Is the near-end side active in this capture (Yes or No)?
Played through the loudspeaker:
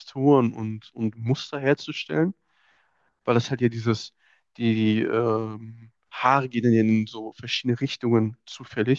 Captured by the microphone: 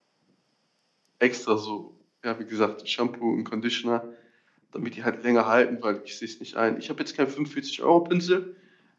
Yes